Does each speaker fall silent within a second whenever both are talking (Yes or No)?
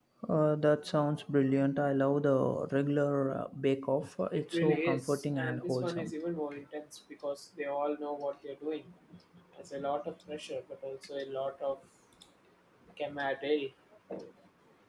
No